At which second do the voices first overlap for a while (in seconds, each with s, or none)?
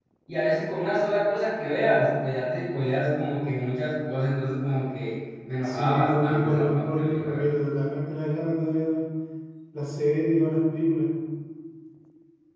5.6 s